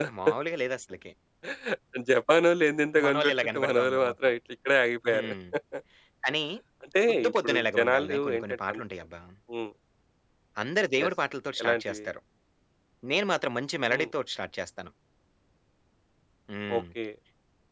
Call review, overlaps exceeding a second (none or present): present